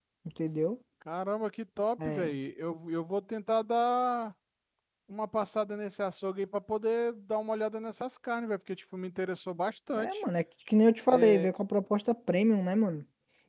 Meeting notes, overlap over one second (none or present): none